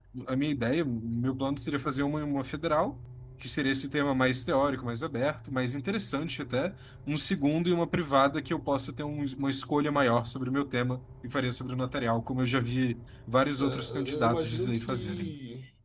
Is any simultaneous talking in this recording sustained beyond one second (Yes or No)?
Yes